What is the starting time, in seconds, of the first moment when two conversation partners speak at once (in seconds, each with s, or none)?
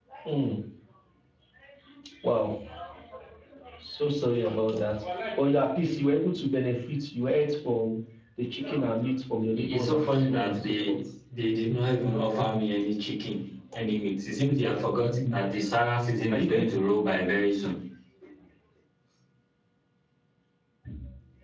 9.5 s